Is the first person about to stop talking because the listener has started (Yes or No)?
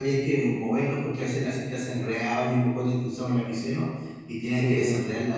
No